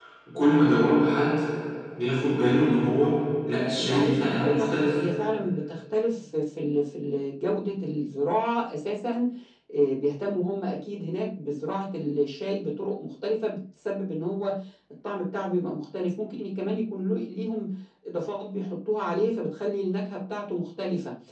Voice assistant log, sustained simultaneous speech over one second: present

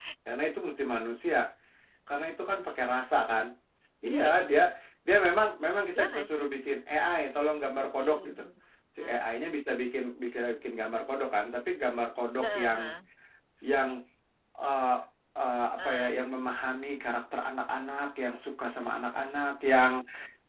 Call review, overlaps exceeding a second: none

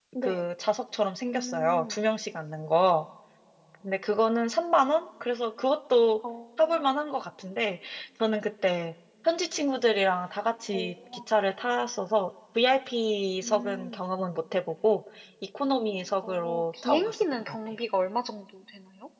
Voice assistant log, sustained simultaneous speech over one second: present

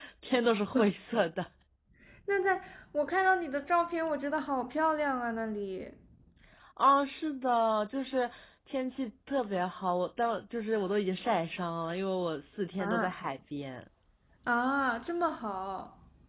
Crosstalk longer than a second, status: none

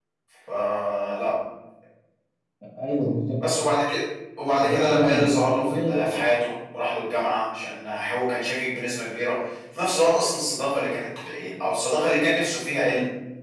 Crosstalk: present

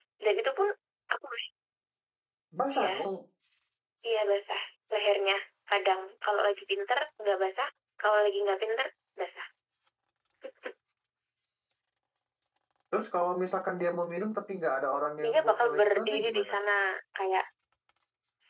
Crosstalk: present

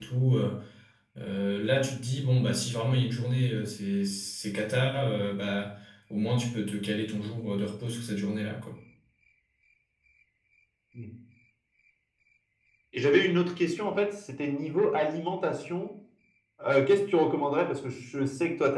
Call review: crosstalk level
none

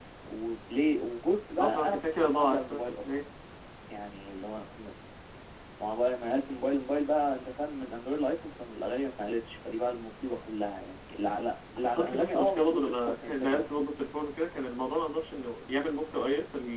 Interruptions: present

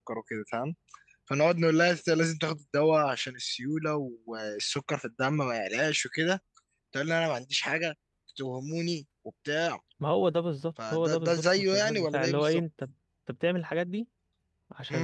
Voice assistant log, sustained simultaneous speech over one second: present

